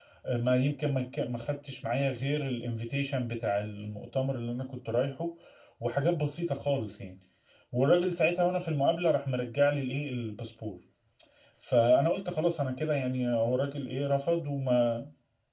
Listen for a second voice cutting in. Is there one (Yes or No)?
No